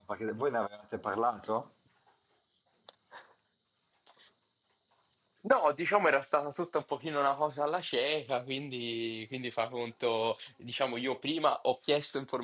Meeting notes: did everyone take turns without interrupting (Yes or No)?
Yes